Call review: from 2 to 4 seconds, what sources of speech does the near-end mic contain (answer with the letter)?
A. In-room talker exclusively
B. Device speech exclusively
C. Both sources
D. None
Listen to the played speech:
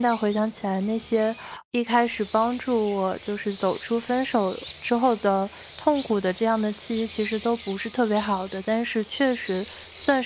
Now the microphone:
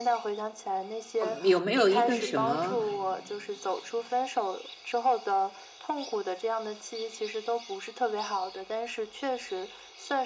C